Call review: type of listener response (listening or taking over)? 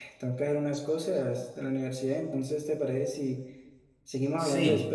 taking over